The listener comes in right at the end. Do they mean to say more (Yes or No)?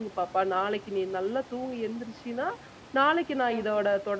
No